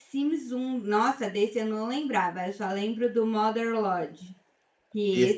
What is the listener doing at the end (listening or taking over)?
listening